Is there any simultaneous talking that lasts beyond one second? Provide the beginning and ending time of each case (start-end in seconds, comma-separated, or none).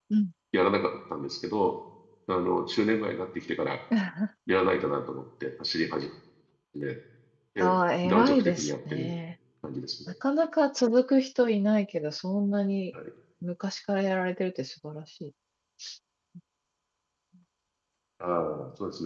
7.6-9.1